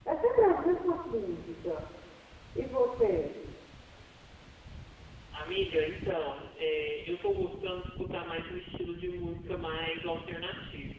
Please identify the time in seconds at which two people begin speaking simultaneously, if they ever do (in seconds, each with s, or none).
none